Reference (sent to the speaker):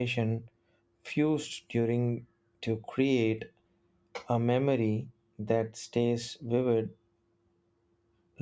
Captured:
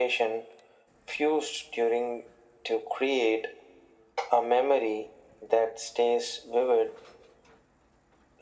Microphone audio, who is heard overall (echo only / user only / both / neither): echo only